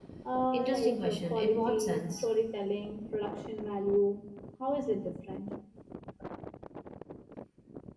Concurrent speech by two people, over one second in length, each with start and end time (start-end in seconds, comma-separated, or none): 0.5-2.2